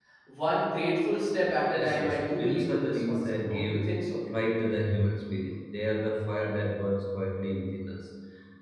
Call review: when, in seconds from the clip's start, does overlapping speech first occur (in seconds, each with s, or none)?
1.7 s